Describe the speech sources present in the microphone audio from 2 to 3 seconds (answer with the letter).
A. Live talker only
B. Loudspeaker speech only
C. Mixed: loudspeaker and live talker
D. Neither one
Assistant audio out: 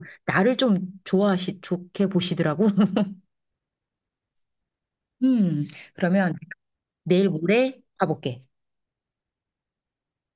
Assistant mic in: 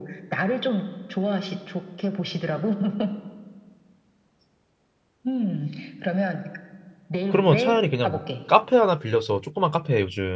B